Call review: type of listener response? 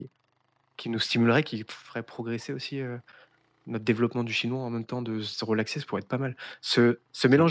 listening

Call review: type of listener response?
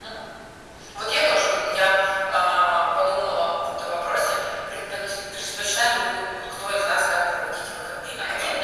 listening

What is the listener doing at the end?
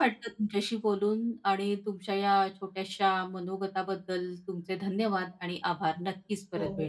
taking over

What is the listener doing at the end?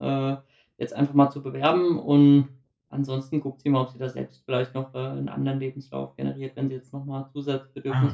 taking over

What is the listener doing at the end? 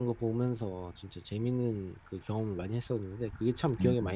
taking over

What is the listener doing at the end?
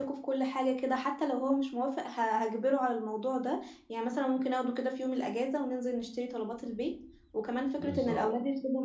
listening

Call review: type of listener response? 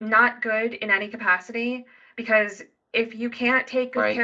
listening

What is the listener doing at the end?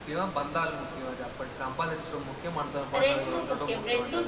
taking over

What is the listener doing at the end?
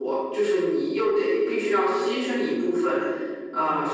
listening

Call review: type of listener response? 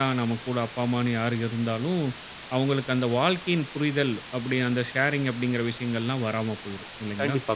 taking over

